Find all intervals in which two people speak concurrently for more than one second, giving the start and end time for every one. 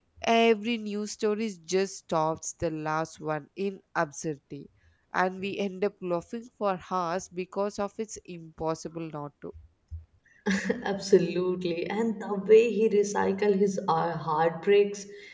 none

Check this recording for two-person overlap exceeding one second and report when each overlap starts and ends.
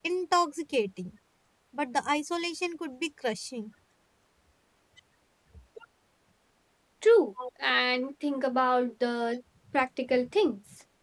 none

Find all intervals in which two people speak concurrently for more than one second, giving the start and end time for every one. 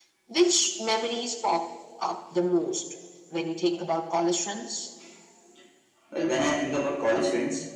none

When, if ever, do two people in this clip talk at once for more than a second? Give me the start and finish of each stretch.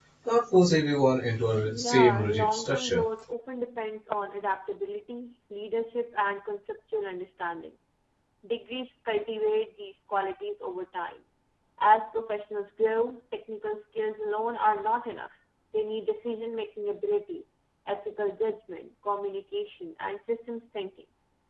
1.6-3.0

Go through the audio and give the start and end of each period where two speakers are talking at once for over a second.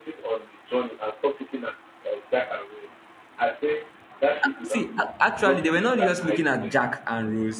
5.4-6.8

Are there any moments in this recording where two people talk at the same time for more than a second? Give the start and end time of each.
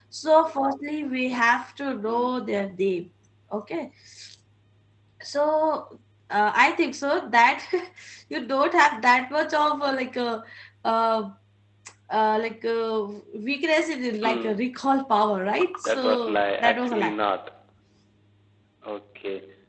15.8-17.1

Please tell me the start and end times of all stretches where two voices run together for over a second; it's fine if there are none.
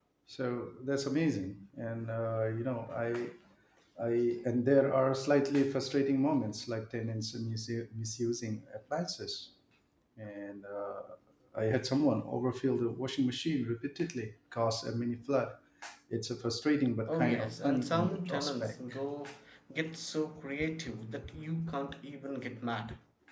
17.1-18.8

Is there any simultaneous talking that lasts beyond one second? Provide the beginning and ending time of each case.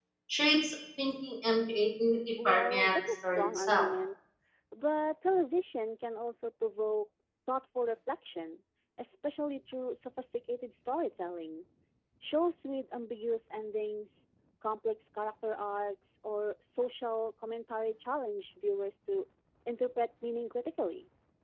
2.5-3.9

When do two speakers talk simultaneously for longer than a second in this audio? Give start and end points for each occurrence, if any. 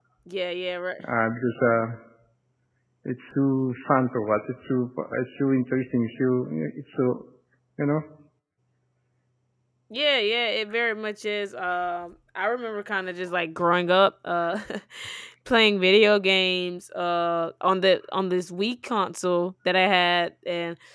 none

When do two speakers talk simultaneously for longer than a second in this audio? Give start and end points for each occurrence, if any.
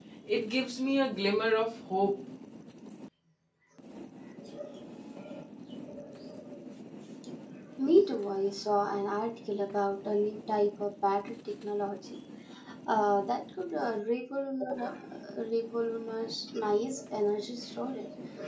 none

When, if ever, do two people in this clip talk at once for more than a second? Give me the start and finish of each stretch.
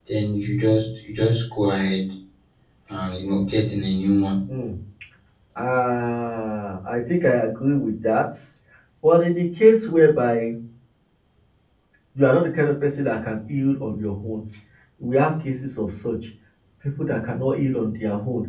none

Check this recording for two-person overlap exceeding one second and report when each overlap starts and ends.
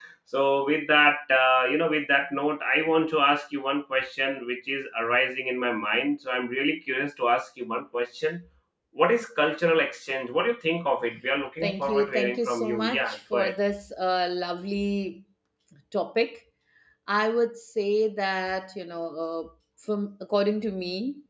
11.6-13.5

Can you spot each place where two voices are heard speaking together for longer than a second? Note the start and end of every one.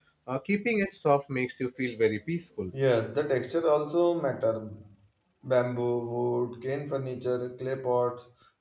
none

